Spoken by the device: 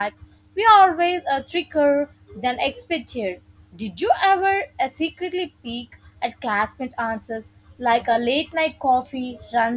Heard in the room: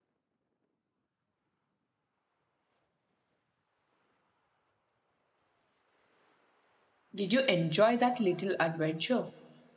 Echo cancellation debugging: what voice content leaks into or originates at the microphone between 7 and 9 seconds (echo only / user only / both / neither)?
user only